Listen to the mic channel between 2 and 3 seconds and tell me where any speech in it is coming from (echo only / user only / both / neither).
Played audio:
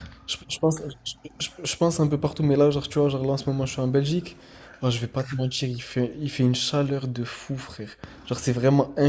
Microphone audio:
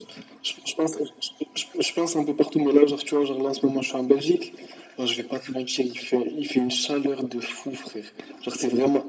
echo only